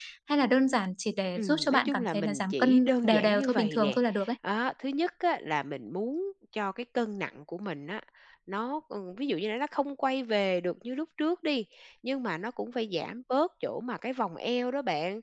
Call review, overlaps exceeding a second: present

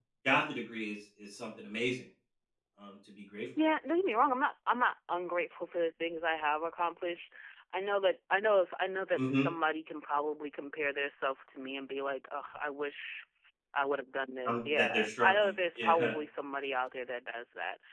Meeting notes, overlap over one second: present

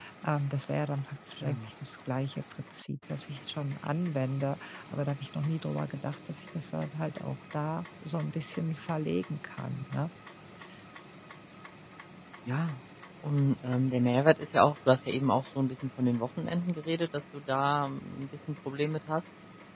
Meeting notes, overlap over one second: none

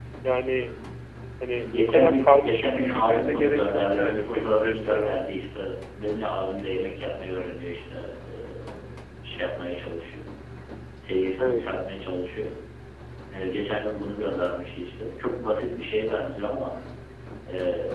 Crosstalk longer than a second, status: present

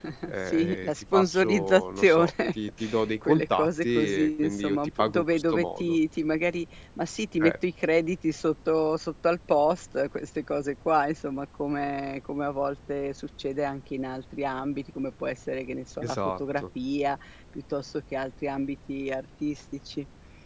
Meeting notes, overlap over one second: present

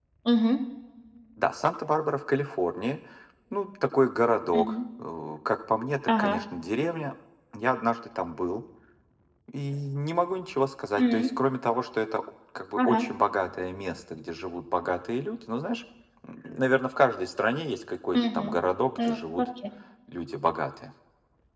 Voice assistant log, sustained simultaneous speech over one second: none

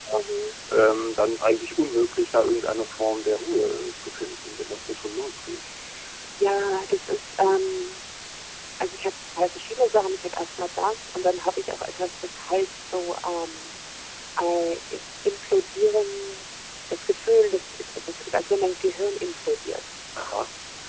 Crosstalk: none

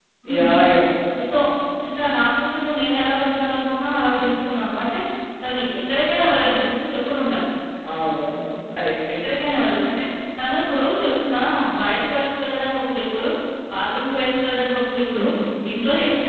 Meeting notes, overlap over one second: none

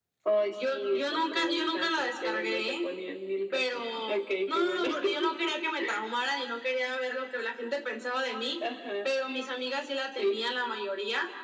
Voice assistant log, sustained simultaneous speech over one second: present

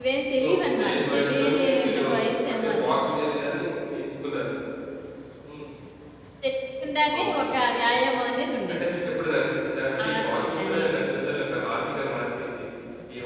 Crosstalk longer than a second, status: present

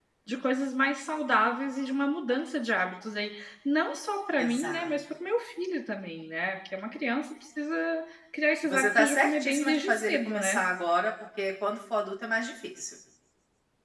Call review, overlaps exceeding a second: present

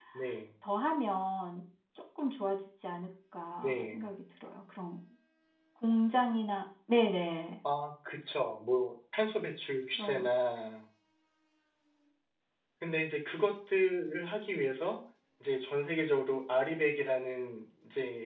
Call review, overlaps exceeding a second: none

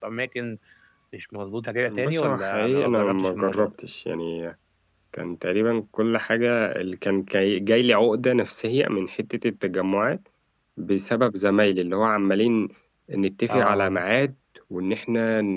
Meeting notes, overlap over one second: present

